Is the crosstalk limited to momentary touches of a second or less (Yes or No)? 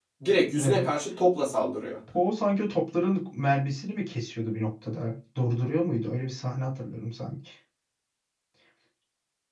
Yes